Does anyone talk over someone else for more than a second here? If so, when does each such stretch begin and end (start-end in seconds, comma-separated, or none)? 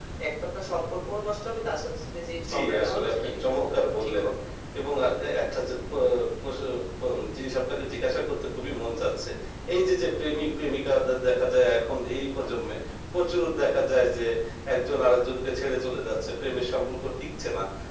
2.5-4.3